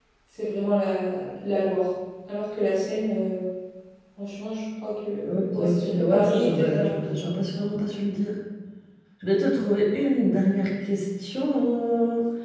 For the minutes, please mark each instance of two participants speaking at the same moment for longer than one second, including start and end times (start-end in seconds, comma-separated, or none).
5.3-7.2